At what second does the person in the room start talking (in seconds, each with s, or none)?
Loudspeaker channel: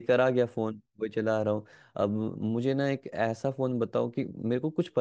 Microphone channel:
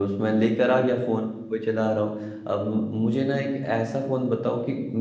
none